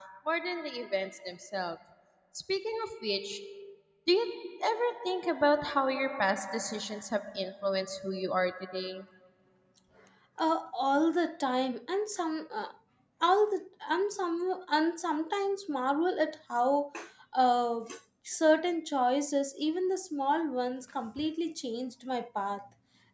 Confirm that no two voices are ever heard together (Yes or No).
Yes